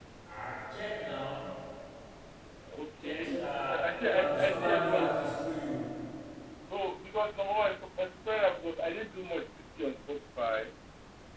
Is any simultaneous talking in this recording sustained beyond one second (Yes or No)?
Yes